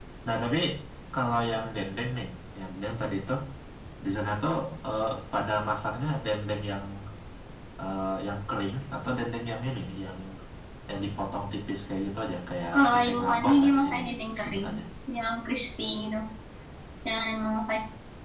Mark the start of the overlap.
12.7 s

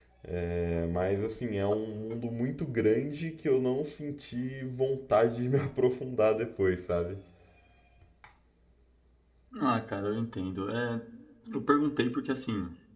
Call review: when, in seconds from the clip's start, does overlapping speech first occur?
none

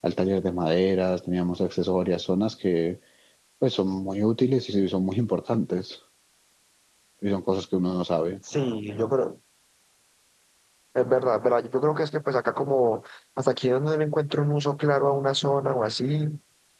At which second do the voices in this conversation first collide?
none

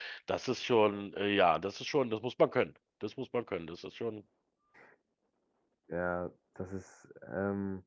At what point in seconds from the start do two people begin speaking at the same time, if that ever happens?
none

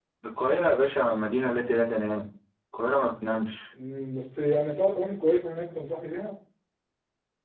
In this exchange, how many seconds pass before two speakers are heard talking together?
none

